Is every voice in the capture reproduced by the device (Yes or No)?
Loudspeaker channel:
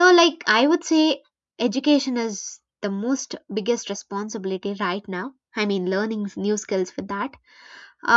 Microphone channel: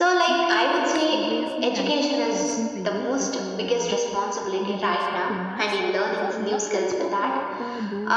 No